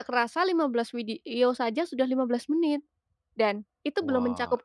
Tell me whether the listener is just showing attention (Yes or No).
Yes